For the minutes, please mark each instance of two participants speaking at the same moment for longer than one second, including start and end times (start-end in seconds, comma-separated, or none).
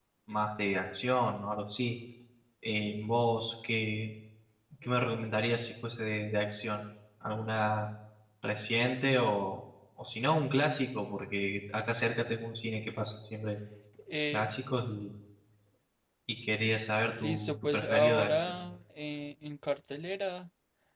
17.2-18.5